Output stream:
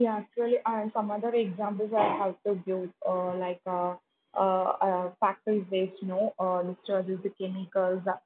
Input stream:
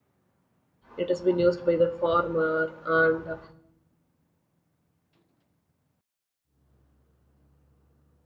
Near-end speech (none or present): present